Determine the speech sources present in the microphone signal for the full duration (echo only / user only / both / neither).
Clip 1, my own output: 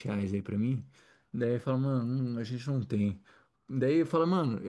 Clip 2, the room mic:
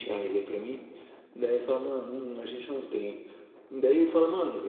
echo only